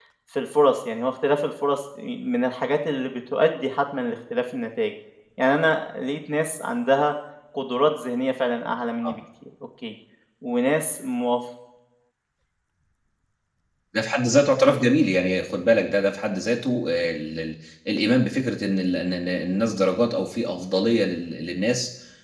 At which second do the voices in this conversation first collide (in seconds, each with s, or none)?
none